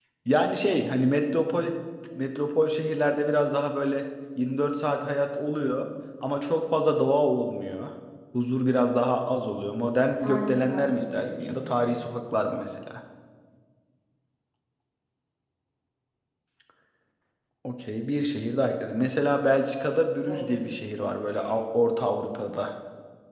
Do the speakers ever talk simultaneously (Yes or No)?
Yes